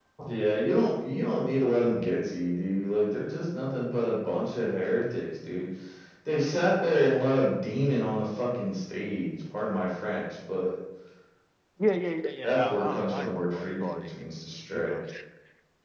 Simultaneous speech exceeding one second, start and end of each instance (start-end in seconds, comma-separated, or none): 12.4-14.2